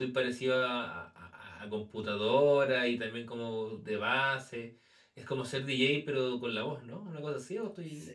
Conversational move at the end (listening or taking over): taking over